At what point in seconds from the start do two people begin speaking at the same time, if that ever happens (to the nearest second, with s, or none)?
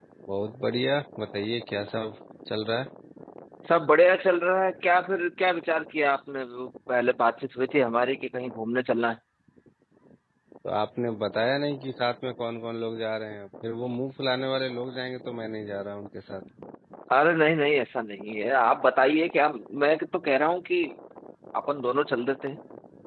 none